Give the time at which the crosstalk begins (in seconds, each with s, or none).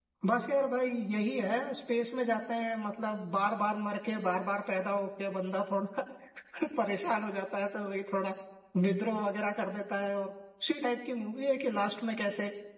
none